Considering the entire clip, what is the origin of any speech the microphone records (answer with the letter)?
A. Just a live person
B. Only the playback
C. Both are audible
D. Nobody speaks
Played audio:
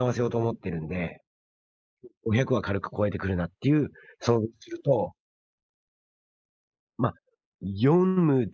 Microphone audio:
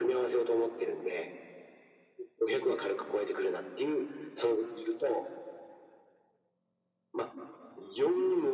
B